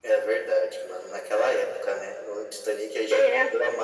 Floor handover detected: No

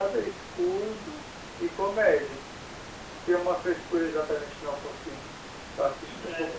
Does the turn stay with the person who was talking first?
No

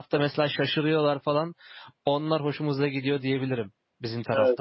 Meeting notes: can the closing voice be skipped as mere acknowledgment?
No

